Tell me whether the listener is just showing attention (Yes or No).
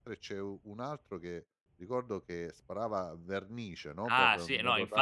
No